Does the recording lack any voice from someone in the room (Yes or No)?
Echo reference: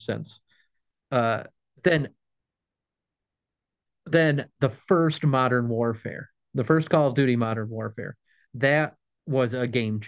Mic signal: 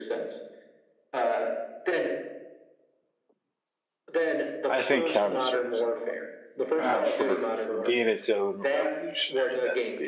No